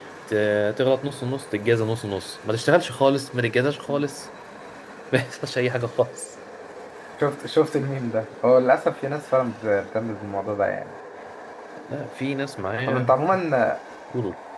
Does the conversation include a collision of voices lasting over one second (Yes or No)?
No